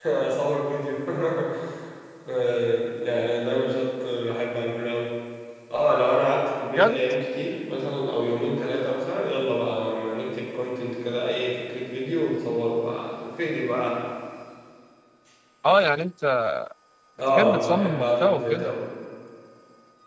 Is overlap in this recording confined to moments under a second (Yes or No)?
No